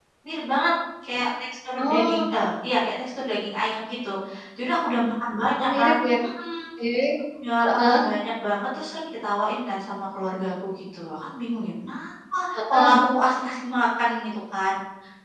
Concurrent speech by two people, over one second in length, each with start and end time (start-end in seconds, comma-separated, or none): none